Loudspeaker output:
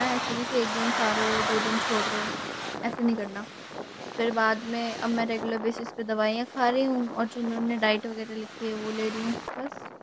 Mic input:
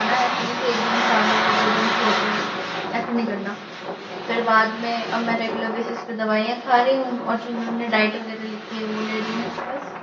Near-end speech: none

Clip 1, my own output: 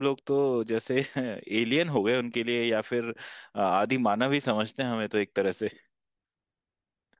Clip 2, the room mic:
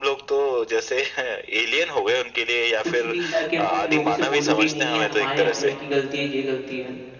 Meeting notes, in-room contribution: present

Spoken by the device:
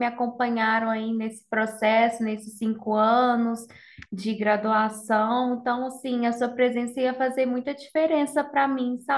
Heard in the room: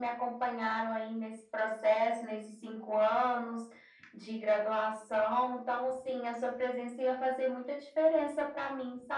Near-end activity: none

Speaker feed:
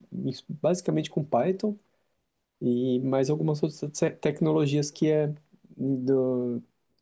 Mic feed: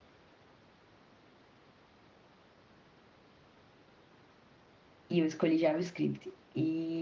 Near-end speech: present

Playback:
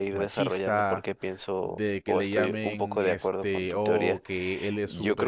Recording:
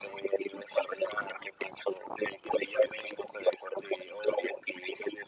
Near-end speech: none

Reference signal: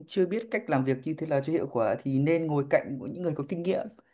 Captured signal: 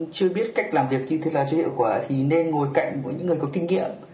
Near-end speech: none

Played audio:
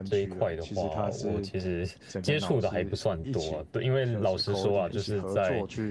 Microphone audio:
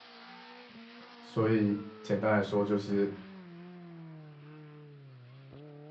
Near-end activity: present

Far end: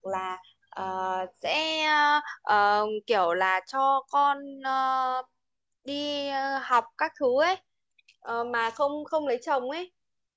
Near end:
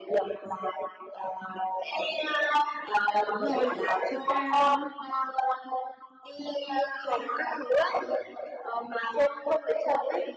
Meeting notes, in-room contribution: present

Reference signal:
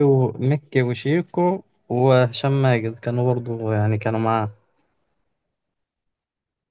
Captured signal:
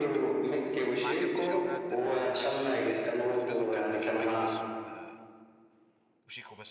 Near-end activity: present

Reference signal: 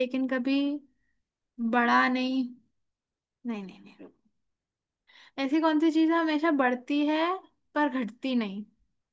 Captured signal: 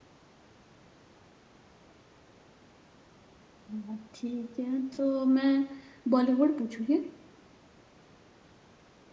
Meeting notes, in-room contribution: present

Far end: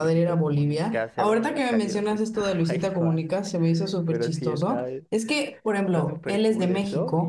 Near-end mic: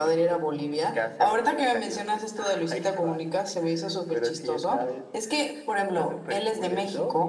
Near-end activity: none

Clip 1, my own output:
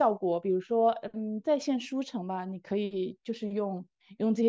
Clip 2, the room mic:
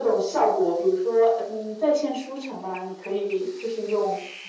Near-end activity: none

